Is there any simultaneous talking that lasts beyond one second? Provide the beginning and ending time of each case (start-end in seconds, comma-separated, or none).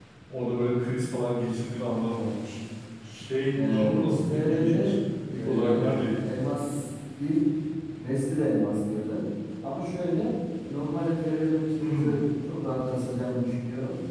3.6-4.8